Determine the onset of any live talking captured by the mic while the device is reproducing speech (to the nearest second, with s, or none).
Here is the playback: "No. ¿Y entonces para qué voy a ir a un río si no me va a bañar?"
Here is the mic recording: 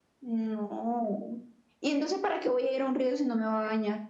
none